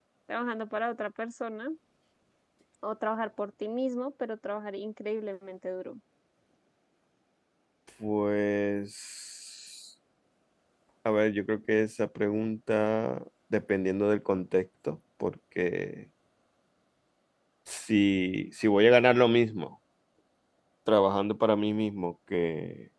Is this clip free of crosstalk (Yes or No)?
Yes